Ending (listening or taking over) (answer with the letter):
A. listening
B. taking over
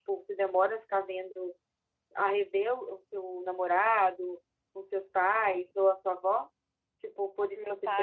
B